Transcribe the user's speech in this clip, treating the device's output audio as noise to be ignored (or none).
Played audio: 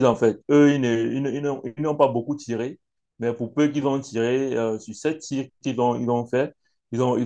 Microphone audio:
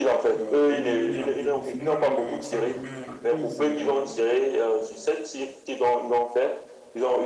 euh, éliminés en demi-finale, euh, ça remet en cause euh,